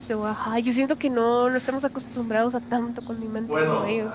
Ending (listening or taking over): taking over